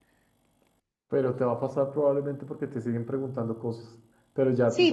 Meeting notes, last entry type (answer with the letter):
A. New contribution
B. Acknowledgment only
A